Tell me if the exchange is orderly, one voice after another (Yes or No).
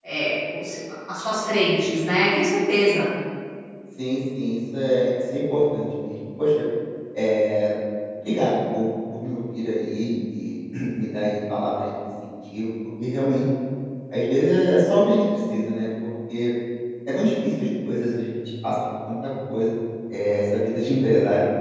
Yes